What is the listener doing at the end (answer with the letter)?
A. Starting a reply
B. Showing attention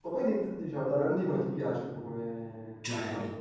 A